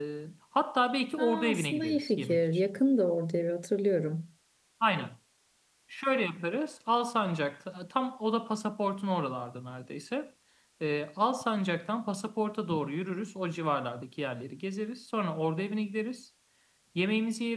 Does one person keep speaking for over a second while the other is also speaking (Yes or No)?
Yes